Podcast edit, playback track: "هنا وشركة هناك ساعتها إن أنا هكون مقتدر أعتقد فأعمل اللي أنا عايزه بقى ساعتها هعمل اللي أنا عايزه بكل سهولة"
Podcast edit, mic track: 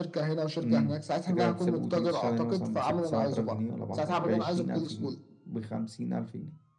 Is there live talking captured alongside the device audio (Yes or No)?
Yes